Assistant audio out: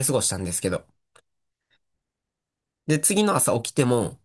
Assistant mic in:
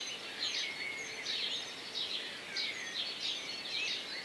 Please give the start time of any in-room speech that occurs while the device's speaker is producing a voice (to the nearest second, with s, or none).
none